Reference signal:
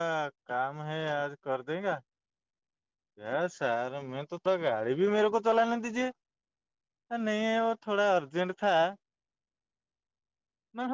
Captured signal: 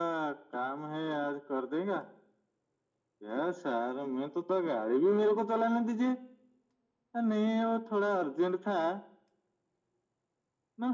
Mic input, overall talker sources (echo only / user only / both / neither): echo only